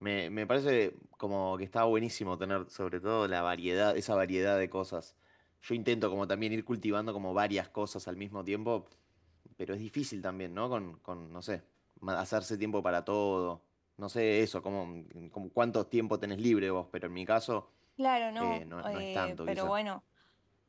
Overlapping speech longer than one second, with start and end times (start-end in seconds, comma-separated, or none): 18.4-19.7